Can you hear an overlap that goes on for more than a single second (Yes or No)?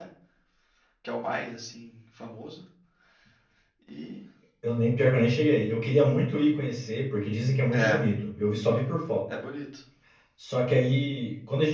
No